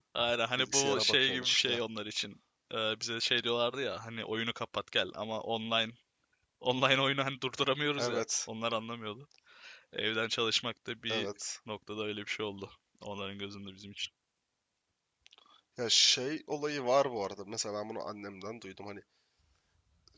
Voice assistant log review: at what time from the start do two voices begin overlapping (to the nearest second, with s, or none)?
1 s